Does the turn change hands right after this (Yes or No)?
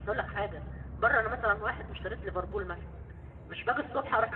No